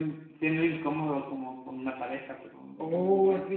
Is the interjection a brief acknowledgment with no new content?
No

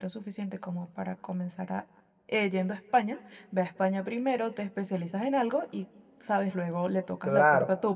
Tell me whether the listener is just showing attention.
No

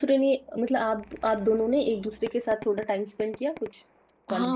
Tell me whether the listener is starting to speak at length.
Yes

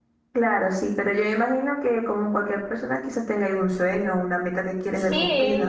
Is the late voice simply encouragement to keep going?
No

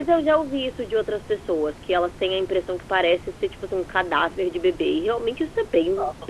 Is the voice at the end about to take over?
Yes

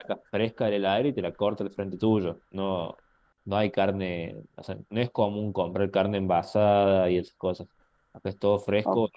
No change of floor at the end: No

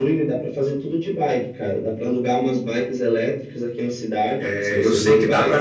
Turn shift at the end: Yes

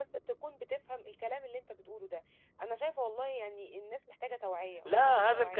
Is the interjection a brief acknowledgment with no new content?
No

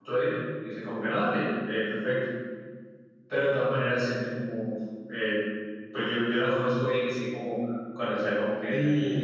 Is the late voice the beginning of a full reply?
Yes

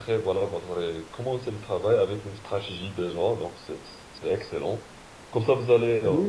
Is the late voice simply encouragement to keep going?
Yes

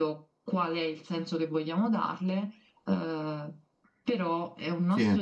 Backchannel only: Yes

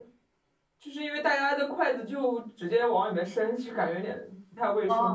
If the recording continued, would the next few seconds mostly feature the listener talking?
Yes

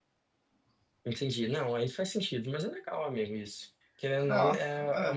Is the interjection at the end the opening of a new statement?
No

